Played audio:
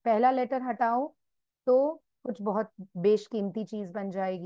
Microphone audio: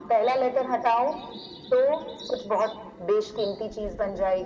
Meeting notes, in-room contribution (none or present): none